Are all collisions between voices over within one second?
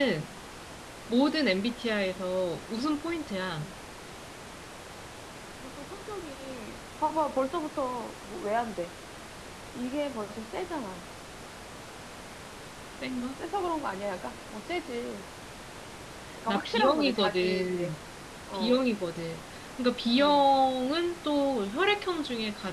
No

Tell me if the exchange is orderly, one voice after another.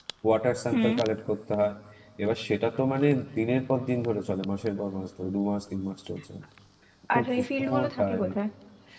No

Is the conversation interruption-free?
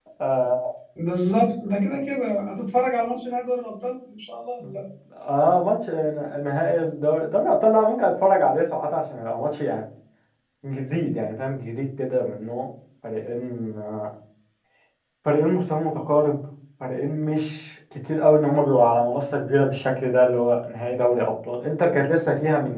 Yes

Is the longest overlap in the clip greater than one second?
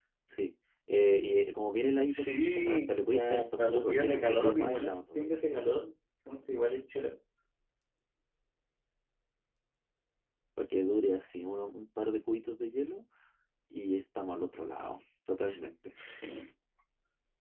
Yes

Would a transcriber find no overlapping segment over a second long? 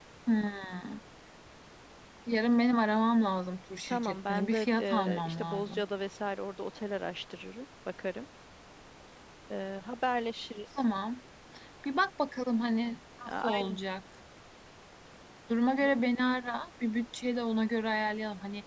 No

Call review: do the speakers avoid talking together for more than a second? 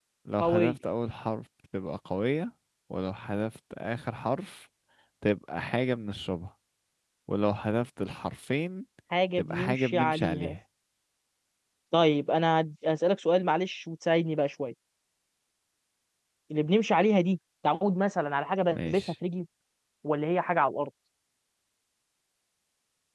No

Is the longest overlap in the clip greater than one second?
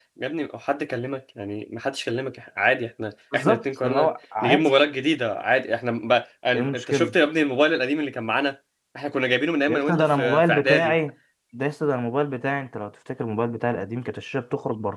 Yes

